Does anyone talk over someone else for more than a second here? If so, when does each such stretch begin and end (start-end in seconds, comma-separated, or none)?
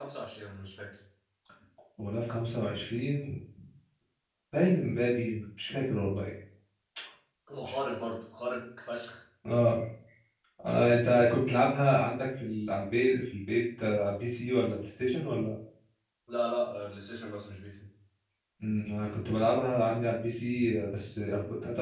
none